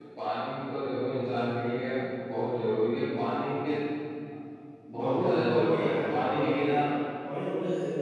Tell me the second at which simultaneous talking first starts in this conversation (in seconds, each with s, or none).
5.0 s